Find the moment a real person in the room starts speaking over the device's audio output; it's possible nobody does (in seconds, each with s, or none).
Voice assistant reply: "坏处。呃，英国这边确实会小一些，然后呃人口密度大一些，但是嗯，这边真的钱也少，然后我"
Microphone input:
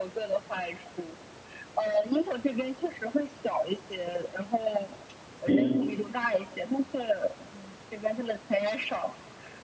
5.4 s